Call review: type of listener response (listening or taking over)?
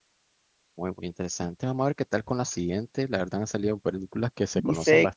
taking over